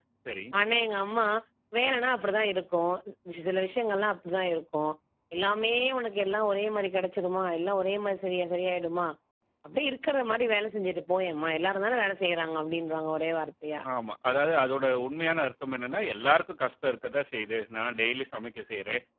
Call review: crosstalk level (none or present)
none